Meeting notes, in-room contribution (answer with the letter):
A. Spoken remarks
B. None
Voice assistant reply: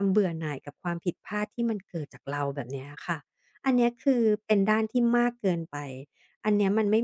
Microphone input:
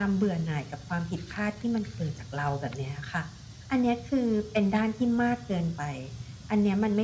B